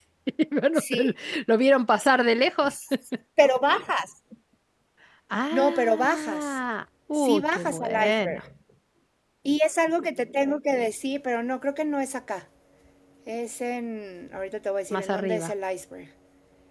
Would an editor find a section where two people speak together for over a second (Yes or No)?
Yes